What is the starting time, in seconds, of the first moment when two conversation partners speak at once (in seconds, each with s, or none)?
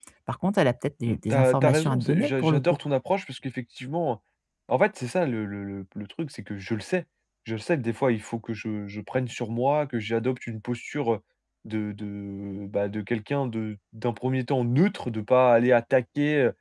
1.1 s